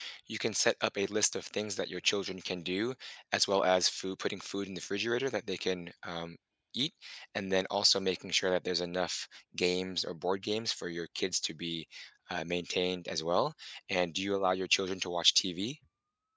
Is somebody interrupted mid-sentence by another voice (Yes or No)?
No